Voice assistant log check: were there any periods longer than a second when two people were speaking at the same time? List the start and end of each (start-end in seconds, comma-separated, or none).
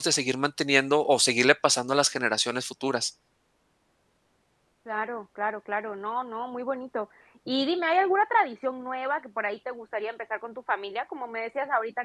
none